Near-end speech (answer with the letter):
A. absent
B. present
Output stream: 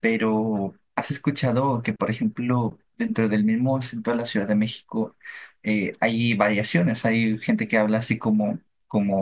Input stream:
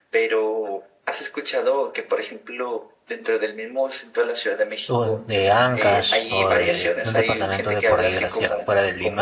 B